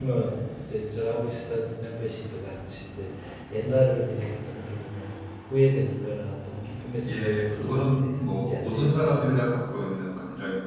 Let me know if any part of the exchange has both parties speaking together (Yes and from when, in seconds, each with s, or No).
Yes, from 7.0 s